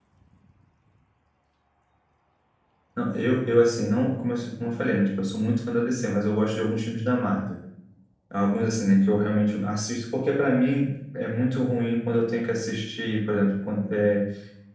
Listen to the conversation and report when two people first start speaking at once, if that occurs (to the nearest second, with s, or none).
none